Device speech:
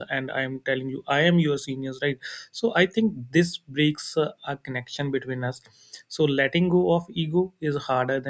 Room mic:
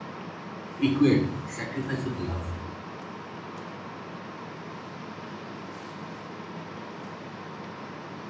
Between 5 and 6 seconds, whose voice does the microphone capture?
neither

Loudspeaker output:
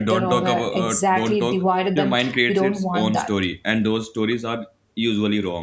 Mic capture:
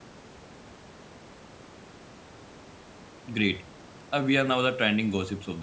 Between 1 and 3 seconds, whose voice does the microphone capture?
neither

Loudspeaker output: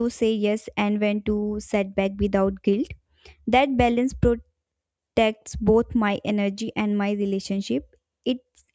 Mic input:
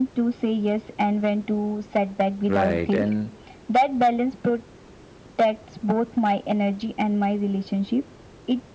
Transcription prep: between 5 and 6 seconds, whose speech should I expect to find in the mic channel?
echo only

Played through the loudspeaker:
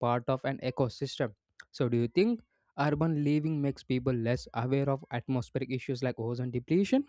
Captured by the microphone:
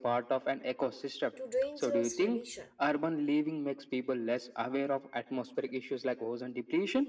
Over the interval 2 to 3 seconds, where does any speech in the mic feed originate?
both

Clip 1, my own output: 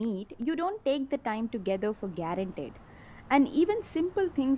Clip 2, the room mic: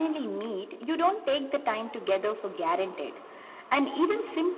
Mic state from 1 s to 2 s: echo only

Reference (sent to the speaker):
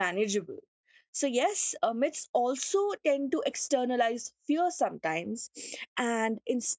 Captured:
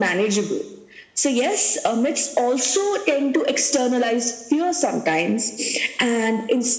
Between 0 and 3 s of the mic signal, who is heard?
echo only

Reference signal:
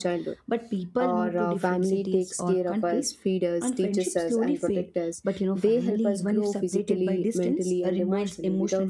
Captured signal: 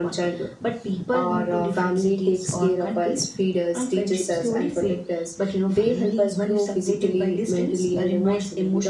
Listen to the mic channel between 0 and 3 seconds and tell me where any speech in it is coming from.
echo only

